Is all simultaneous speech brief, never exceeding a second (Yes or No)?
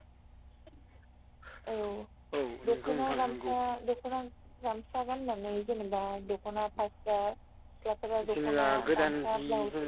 No